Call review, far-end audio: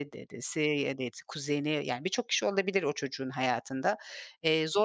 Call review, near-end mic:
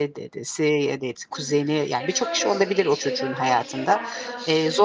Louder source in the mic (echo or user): echo